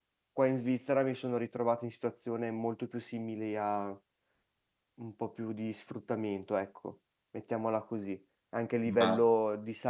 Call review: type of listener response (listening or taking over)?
listening